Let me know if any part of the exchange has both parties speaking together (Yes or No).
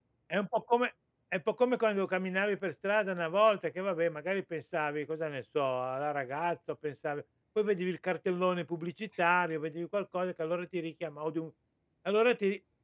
No